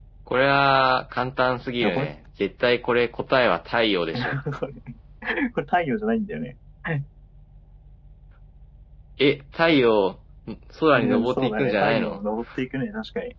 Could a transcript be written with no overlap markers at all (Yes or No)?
No